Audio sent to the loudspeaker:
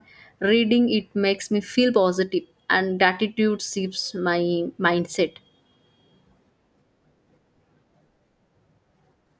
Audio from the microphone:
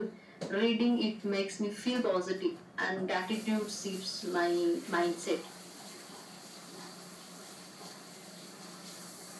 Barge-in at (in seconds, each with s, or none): none